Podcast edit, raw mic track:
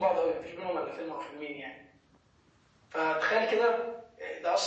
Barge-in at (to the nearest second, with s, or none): none